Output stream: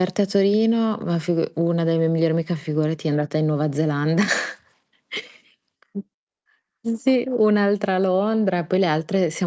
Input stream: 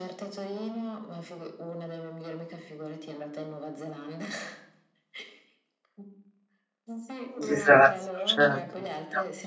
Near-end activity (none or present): present